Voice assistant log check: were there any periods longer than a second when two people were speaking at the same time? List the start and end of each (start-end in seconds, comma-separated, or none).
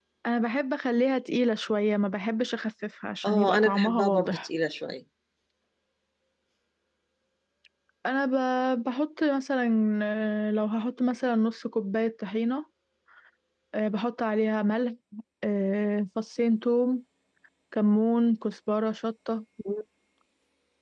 3.2-4.5